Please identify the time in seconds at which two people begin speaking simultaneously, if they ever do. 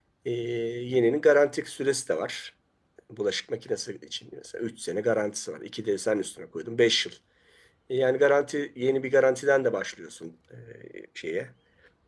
none

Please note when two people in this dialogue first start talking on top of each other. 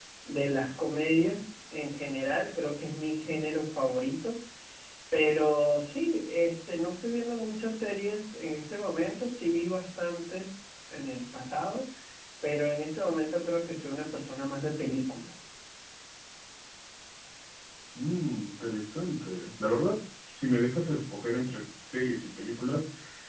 none

